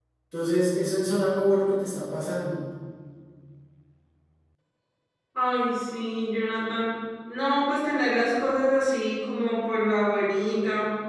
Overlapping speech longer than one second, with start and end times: none

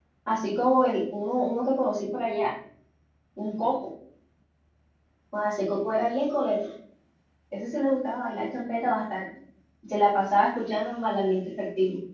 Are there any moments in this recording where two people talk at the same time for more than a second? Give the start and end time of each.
none

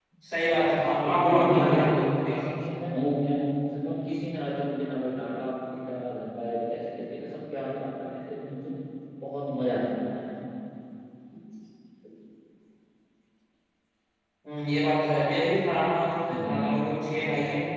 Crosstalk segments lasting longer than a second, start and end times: 1.0-2.3

